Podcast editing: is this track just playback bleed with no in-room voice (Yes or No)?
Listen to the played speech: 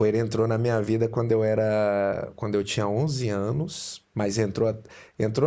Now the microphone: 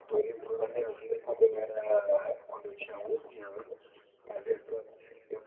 Yes